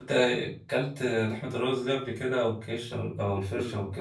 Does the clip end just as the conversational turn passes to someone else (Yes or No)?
Yes